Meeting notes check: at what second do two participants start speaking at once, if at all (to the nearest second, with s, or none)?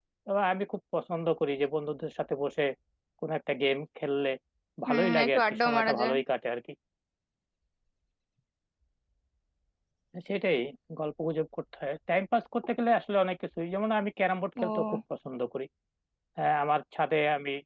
5 s